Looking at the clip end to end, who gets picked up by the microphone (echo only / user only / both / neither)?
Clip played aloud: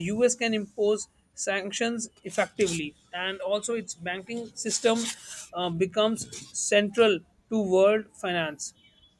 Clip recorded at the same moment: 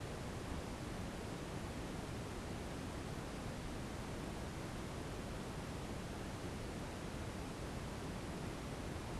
neither